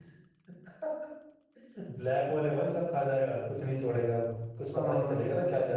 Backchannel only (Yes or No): Yes